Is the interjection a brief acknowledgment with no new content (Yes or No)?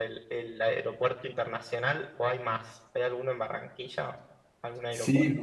No